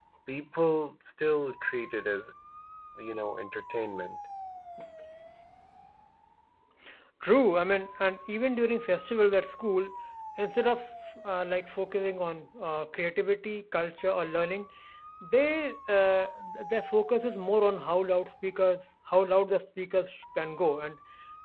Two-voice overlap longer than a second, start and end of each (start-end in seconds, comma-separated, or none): none